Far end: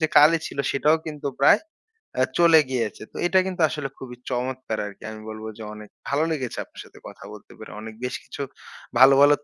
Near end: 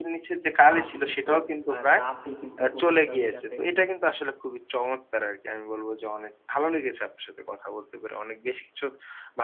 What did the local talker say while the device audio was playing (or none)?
আর বিশেষ করে আ রাতে কিন্তু ঘুমাতে হবে যাতে